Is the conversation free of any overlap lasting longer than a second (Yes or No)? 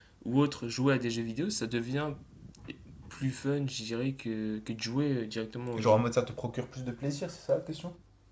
Yes